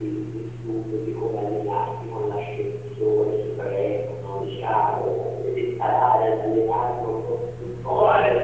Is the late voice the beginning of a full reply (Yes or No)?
Yes